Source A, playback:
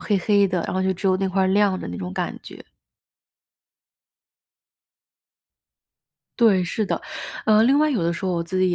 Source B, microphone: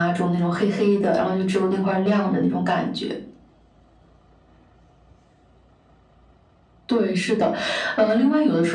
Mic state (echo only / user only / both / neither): echo only